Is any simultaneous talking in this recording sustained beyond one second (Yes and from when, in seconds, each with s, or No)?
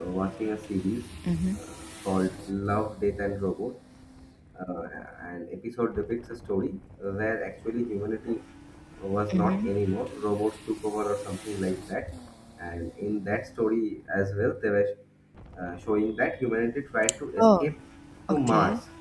No